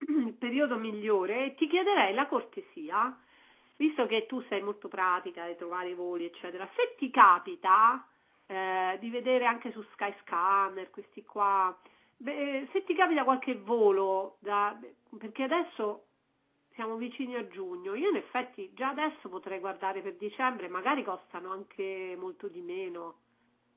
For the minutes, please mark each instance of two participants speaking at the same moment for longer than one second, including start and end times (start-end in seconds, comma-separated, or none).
none